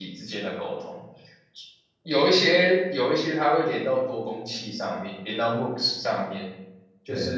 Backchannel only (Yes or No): Yes